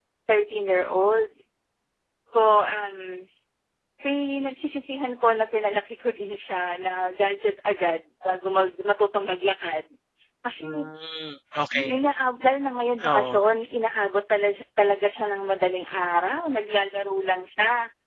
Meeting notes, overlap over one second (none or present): none